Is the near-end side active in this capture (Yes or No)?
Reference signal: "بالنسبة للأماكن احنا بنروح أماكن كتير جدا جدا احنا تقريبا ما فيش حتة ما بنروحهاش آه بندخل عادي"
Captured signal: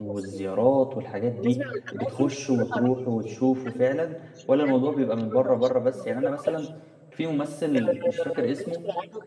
Yes